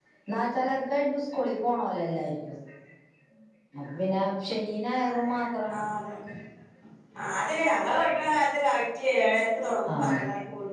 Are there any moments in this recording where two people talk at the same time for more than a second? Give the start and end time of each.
none

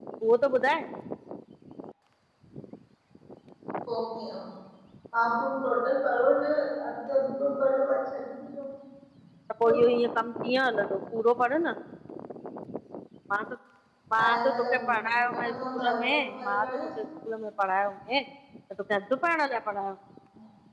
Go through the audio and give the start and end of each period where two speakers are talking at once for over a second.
14.2-16.7

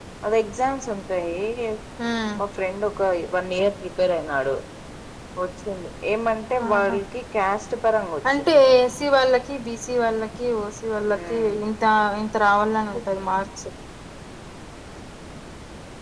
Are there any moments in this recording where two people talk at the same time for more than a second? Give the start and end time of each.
none

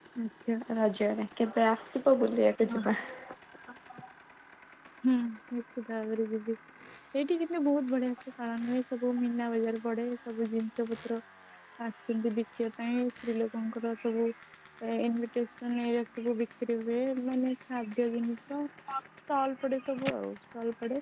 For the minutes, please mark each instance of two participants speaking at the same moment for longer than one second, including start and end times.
none

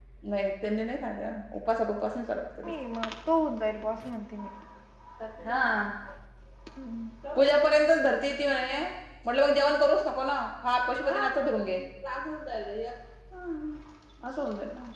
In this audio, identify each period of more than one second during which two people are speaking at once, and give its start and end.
none

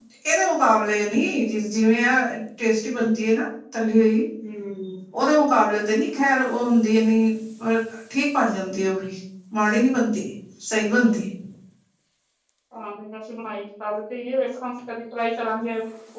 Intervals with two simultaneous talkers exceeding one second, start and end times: none

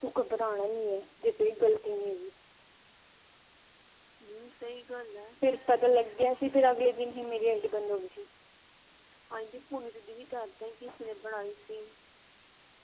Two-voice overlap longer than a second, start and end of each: none

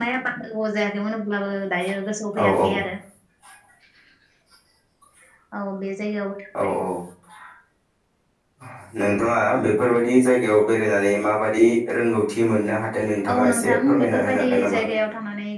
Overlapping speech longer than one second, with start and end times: 13.3-15.0

